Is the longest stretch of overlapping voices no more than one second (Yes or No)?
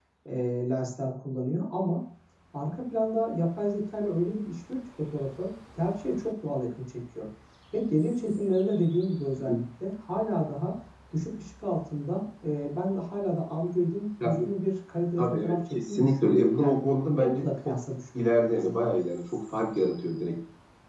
No